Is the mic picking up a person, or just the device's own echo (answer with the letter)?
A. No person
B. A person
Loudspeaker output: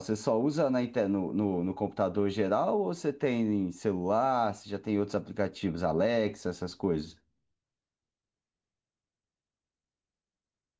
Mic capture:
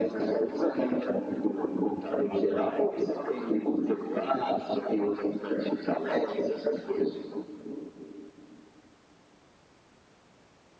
A